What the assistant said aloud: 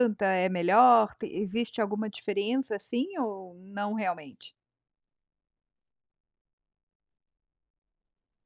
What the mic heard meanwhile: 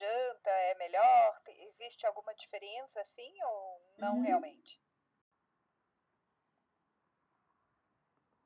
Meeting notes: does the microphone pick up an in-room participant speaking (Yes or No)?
Yes